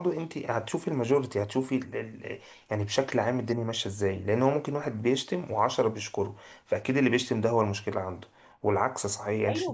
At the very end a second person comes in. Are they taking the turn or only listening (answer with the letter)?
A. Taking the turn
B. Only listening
B